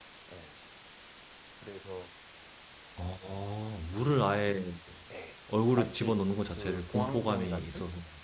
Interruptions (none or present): present